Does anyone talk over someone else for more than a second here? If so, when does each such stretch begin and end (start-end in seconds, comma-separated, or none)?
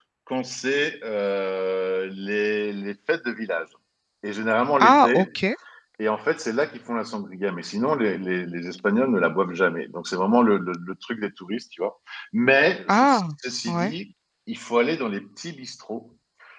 none